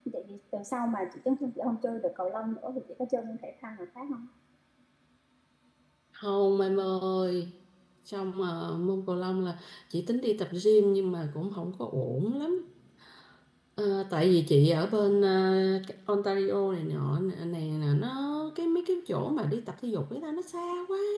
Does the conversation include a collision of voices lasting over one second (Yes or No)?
No